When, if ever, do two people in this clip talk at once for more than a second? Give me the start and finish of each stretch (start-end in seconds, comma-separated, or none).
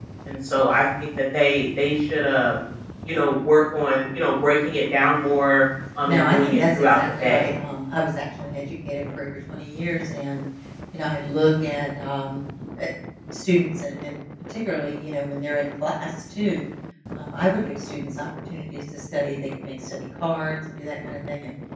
6.1-7.5